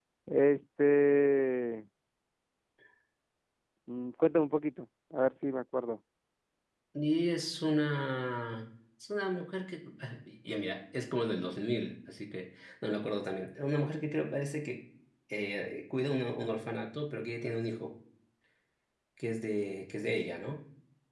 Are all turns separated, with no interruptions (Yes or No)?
Yes